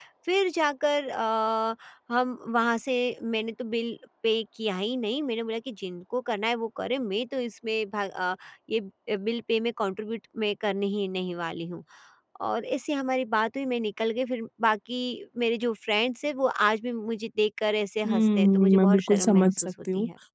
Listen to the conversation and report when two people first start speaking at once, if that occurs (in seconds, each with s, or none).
18.0 s